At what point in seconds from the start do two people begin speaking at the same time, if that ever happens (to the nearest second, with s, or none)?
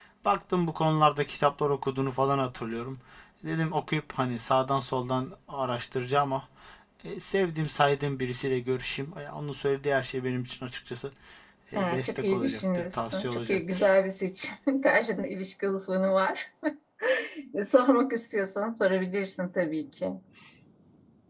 12 s